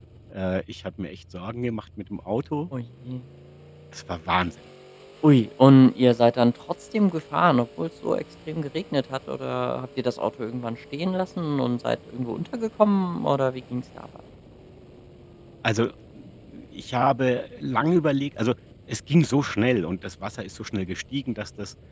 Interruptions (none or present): none